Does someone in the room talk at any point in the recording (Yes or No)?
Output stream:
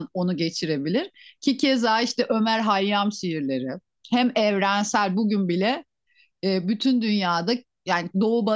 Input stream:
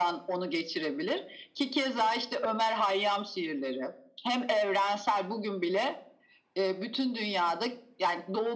No